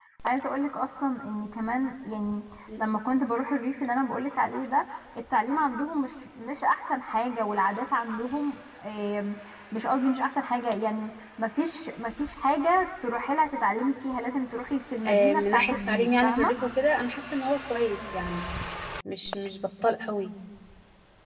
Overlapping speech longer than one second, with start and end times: 15.1-16.5

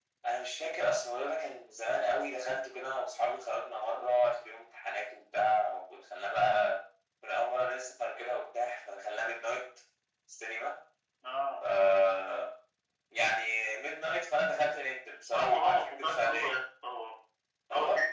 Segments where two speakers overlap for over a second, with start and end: 15.3-16.6

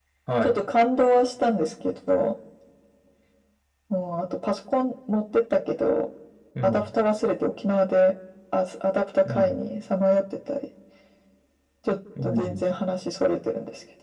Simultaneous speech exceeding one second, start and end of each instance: none

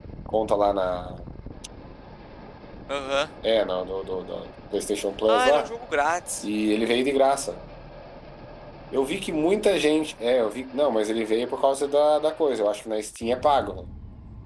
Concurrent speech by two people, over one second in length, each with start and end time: none

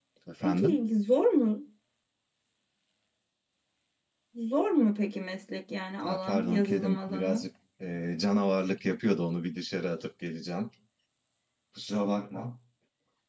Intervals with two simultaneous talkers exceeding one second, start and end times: 6.0-7.4

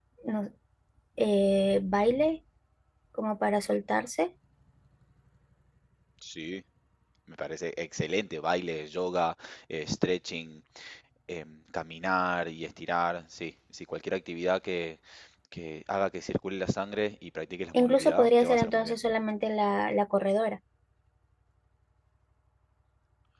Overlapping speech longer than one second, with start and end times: 17.7-19.0

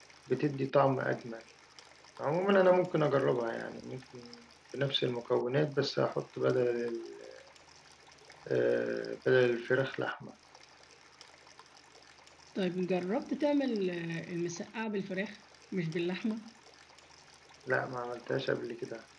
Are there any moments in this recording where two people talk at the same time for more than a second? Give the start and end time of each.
none

